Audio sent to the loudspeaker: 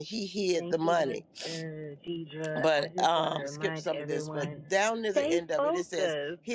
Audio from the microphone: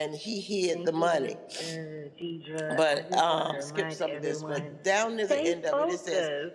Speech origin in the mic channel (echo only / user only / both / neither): echo only